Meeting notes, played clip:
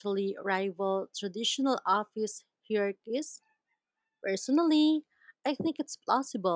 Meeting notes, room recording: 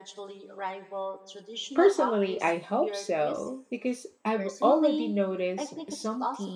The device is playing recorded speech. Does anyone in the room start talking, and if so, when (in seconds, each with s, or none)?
1.7 s